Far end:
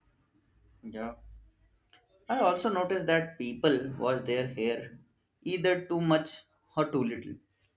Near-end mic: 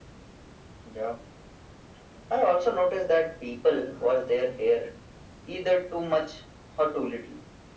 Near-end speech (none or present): none